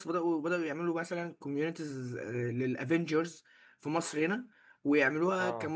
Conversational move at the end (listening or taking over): listening